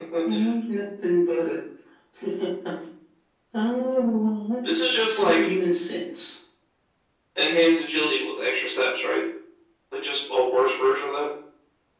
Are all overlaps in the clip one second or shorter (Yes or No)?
Yes